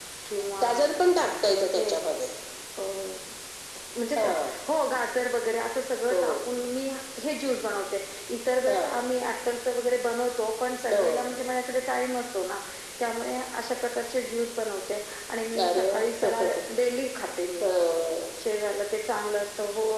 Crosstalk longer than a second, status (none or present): none